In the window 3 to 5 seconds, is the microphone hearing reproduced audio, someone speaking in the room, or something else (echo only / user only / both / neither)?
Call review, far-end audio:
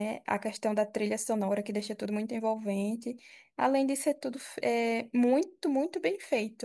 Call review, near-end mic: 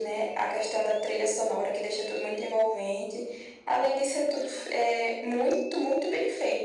echo only